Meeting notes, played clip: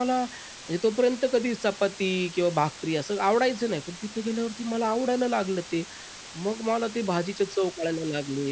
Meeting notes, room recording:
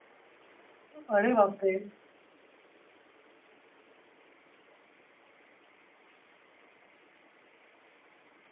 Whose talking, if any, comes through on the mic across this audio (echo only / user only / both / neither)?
user only